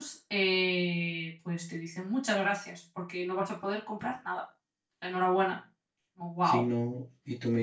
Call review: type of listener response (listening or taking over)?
taking over